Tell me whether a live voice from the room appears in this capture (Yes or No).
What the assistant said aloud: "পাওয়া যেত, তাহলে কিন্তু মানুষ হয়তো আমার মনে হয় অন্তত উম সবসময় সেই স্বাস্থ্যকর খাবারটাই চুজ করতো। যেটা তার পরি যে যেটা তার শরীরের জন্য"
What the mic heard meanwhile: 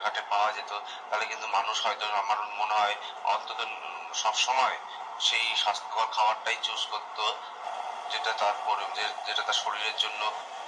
No